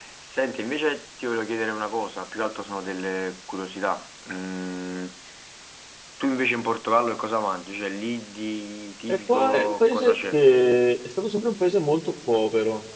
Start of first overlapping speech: 9 s

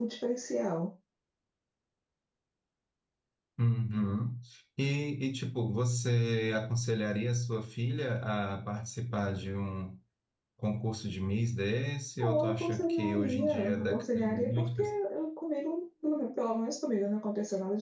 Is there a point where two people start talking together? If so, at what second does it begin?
12 s

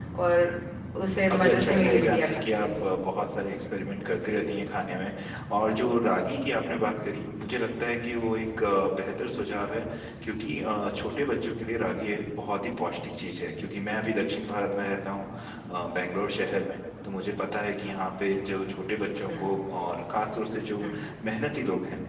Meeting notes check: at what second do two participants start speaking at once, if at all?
1 s

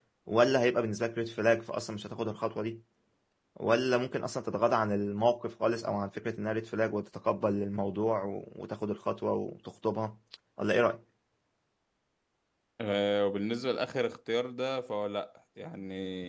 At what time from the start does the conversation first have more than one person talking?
none

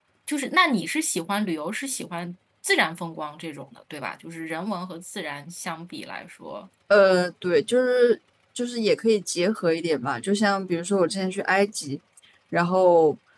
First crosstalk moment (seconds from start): none

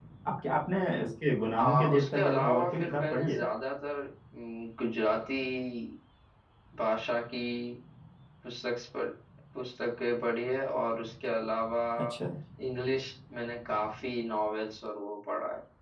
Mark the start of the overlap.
2 s

